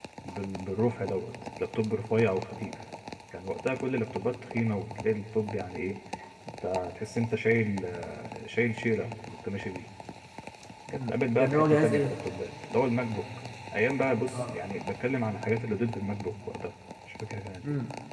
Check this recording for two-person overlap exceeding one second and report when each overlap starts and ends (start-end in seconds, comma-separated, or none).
10.9-12.1